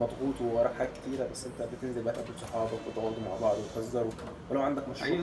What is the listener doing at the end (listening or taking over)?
taking over